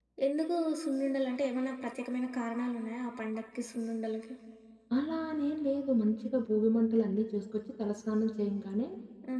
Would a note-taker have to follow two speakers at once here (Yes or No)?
No